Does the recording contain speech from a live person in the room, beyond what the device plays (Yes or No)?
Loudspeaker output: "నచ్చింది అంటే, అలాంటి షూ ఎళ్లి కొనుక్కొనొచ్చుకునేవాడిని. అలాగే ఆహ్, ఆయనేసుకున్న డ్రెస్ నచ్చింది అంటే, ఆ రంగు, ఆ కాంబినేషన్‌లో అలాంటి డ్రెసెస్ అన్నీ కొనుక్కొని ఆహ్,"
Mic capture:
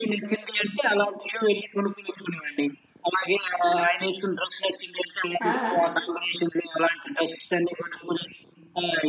Yes